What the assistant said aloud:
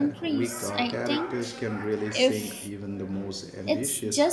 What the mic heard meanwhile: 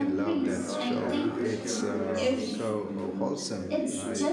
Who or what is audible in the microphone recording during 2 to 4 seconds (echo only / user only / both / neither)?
both